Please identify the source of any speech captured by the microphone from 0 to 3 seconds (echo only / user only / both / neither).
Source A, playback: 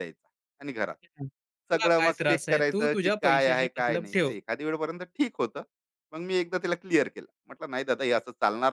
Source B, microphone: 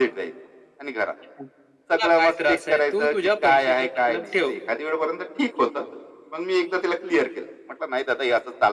echo only